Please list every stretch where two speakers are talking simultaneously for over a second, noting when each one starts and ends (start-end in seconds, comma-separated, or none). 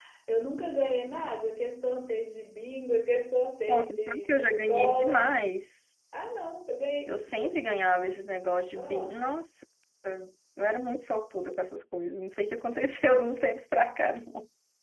3.7-5.2